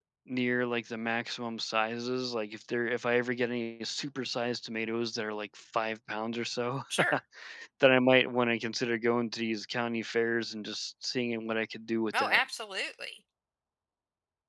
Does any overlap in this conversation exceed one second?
No

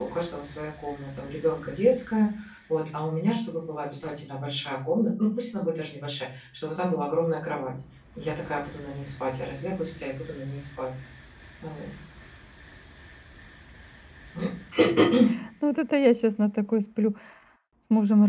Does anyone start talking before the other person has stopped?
No

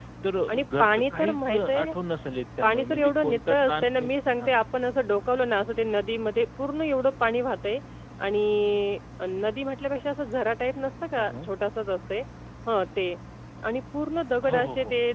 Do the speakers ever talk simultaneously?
Yes, from 0.5 s

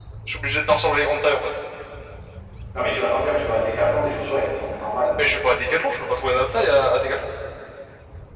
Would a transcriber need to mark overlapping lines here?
No

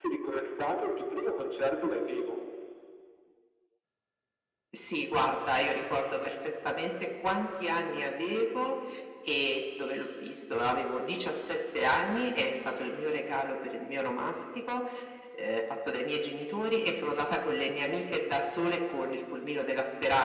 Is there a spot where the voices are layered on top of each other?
No

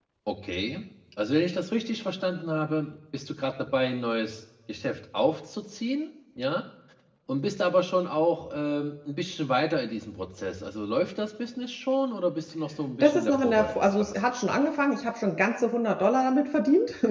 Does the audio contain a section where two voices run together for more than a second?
Yes, from 13.0 s

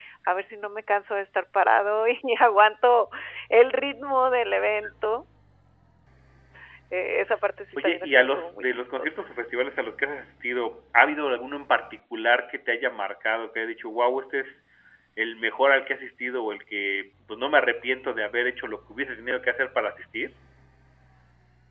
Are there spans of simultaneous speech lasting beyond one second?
Yes, from 7.8 s

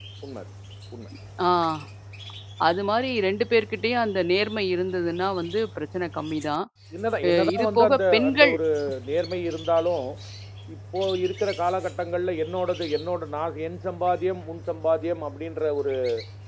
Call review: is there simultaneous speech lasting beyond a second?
Yes, from 7.2 s

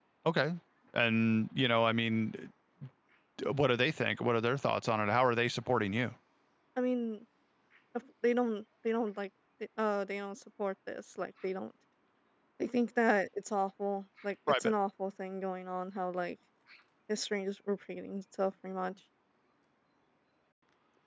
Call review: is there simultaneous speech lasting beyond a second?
No

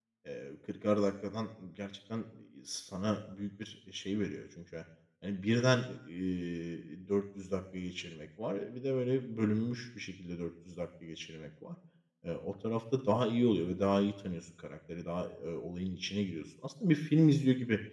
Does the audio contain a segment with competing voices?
No

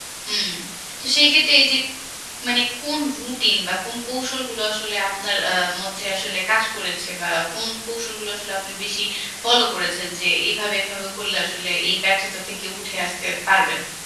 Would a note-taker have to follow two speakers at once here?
No

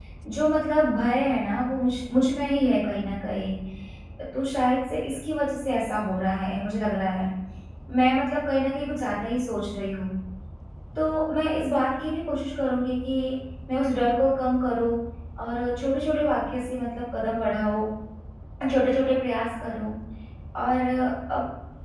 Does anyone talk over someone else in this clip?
No

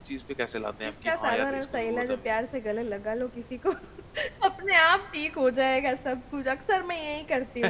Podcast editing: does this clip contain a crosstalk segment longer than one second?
Yes, from 0.9 s

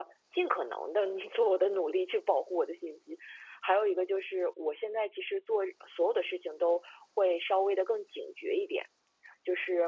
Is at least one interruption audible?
No

